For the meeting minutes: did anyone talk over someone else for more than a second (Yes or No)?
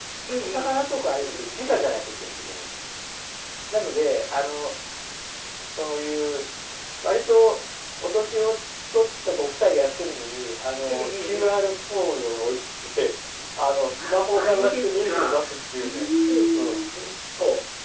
Yes